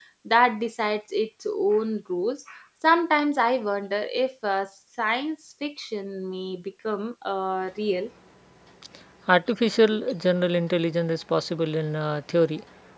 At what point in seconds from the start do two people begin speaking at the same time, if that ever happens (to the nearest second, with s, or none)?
none